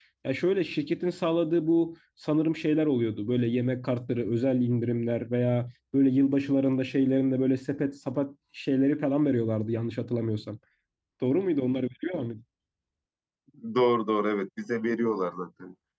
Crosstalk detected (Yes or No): No